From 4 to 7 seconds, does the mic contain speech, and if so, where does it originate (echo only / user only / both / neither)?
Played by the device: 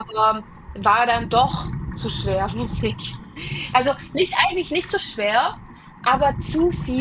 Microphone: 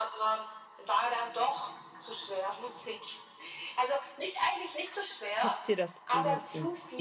both